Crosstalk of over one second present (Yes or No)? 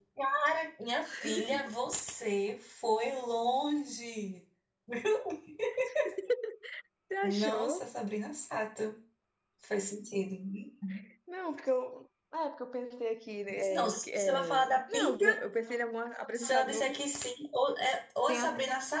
Yes